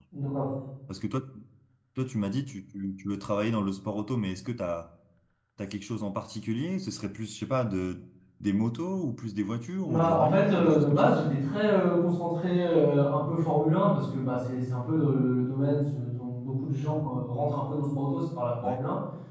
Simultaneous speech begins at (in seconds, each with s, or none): 9.9 s